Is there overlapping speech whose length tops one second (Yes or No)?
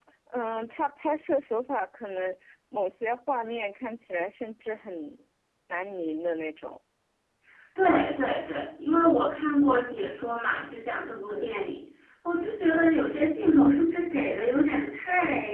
No